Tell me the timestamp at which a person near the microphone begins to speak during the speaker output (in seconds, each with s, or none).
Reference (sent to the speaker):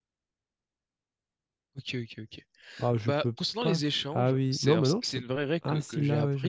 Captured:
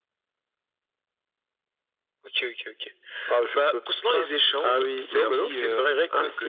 4.6 s